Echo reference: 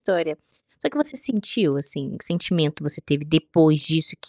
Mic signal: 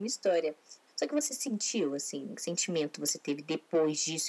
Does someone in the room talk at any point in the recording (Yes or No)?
No